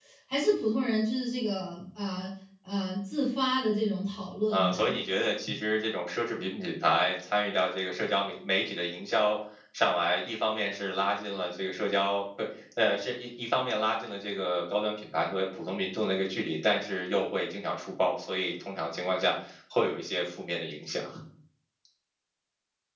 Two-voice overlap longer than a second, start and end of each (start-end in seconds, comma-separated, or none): none